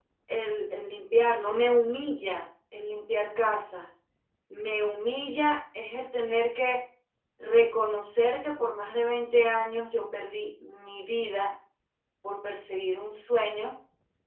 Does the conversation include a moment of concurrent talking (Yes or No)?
No